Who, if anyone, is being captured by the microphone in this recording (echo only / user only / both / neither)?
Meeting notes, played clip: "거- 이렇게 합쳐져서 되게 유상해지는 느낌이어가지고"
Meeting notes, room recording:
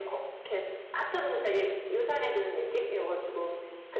echo only